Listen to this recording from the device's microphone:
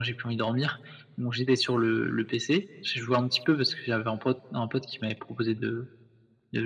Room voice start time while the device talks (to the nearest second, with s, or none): none